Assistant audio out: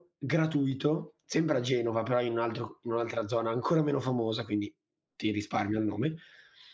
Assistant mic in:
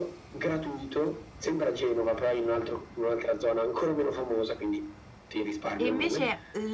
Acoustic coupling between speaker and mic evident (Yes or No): Yes